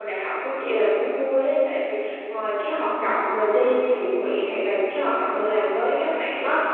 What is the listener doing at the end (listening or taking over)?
listening